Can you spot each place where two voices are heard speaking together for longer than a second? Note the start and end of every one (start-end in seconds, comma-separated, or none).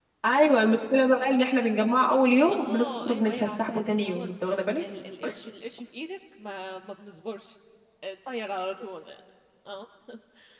2.5-4.2